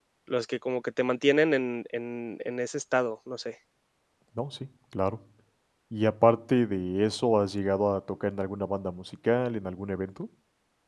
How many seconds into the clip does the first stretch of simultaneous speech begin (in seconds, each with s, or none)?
none